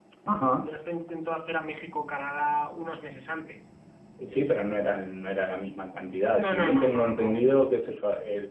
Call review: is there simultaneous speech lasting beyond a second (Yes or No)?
Yes